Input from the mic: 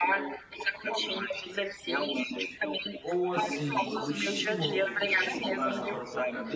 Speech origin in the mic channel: both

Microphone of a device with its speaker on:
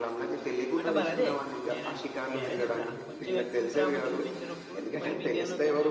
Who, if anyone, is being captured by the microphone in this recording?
both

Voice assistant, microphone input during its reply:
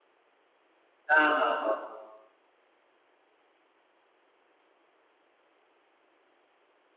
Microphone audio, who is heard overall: user only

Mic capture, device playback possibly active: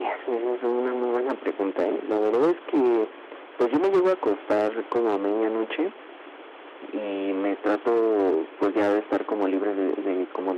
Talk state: echo only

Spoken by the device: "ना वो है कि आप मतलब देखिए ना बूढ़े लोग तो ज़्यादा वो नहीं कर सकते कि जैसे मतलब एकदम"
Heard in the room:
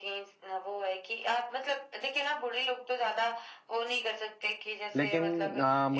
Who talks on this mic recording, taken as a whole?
both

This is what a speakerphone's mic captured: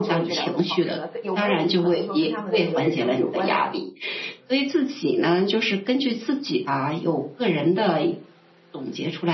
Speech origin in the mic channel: both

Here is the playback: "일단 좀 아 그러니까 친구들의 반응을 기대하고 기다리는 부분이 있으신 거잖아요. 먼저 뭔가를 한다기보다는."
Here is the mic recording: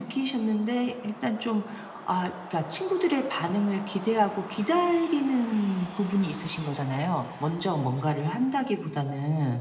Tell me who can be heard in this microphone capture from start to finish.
echo only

